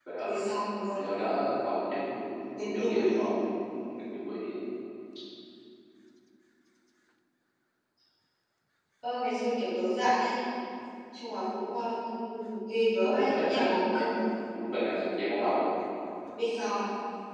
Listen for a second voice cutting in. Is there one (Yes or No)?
Yes